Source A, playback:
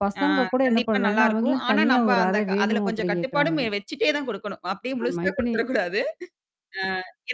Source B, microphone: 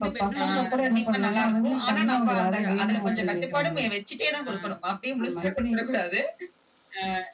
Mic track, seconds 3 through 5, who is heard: both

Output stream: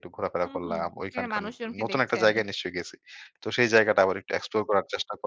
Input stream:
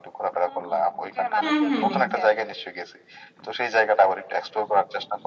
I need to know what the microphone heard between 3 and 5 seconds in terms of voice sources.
echo only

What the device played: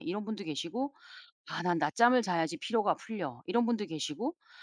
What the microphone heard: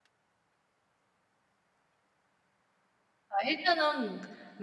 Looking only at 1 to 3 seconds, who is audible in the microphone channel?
neither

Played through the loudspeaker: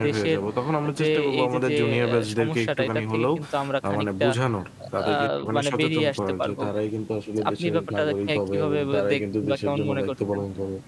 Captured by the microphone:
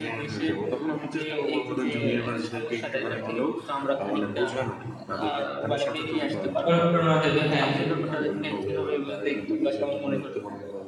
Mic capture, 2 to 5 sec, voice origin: echo only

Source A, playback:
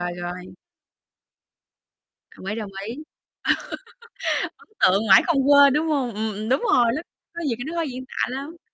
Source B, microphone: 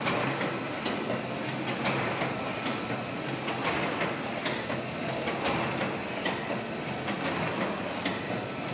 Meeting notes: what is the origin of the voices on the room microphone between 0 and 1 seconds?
neither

